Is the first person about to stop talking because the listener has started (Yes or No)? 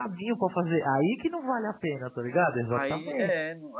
Yes